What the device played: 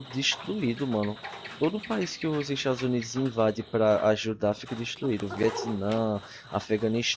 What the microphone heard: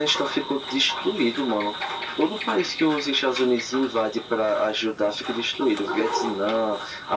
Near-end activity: none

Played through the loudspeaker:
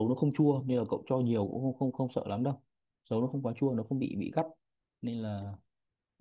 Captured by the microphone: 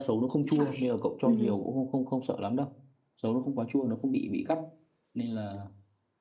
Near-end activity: present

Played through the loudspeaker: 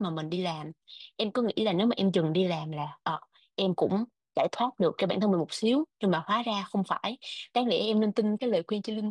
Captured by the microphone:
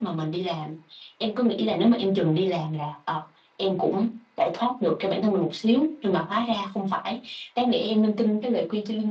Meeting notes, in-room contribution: none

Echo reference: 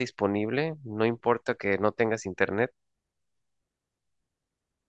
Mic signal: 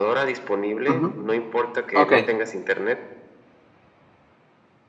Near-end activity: present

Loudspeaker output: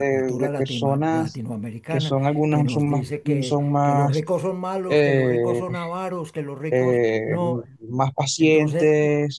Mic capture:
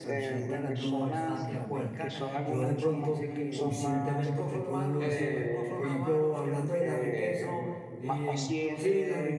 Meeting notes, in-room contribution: present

